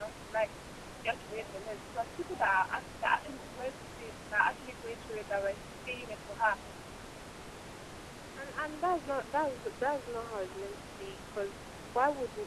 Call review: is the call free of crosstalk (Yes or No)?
Yes